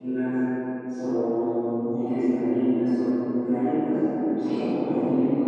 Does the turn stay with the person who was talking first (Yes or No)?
Yes